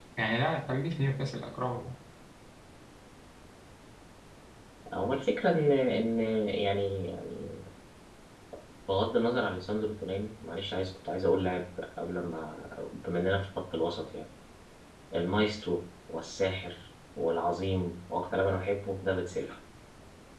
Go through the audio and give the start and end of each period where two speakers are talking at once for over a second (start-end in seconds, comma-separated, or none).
none